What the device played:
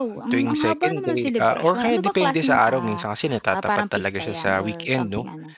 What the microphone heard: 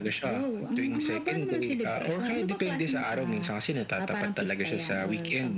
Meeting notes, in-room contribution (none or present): none